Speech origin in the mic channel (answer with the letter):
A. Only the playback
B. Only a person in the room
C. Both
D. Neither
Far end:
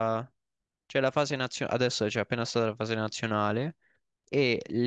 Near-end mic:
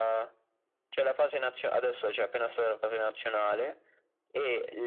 A